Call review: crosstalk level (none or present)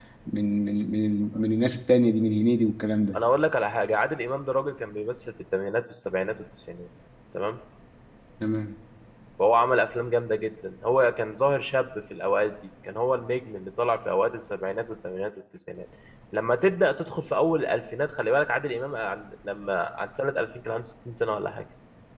none